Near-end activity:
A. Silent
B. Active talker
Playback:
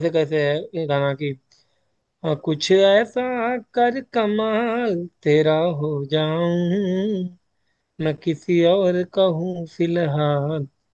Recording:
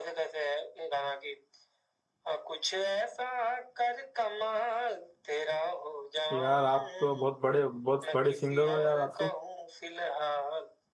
B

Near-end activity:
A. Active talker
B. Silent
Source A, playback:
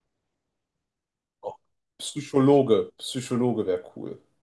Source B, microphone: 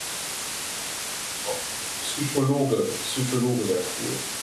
B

